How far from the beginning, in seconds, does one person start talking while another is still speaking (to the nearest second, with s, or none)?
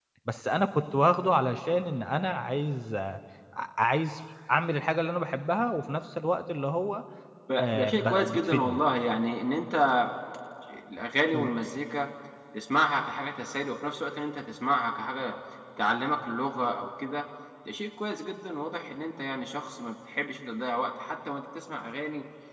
8 s